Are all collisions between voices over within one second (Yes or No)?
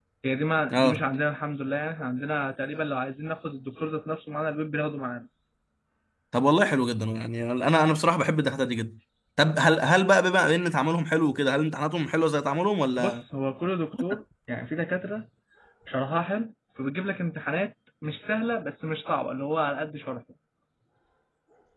Yes